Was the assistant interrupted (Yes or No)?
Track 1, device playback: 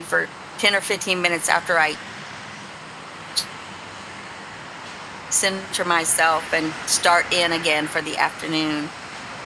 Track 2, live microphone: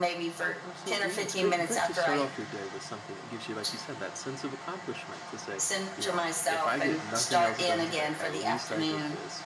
Yes